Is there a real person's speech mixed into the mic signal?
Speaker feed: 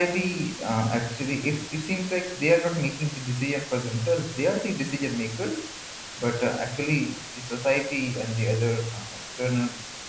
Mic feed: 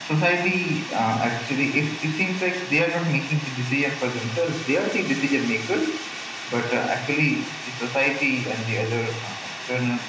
No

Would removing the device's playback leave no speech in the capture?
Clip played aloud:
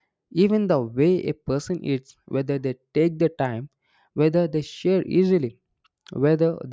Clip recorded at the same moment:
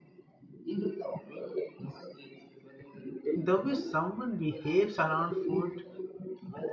No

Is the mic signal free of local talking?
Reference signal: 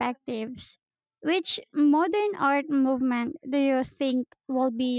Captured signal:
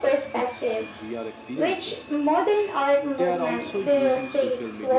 No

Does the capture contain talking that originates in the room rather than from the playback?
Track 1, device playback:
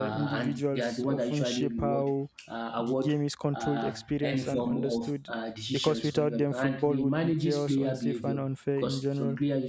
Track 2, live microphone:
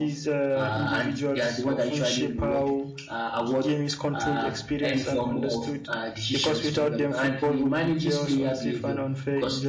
No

